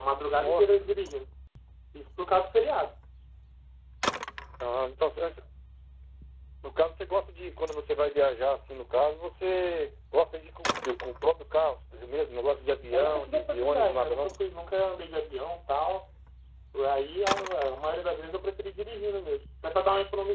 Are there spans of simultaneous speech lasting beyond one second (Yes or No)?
Yes